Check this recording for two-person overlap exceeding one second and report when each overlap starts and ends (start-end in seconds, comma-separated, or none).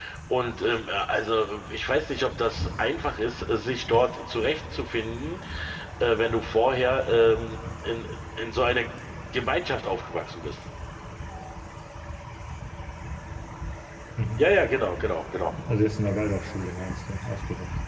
none